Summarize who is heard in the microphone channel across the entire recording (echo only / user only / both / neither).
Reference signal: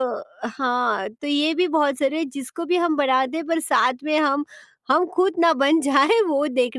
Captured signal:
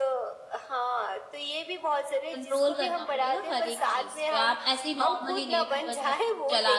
both